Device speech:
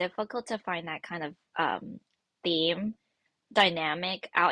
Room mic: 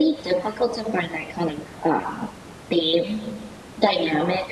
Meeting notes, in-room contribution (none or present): none